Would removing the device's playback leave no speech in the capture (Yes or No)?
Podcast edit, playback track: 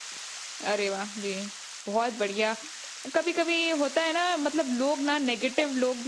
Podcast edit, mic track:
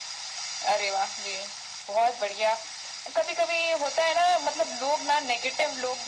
Yes